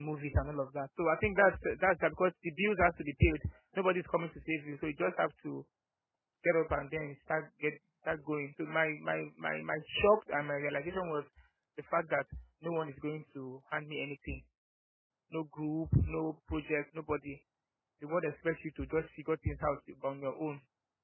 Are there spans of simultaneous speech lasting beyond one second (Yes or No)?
No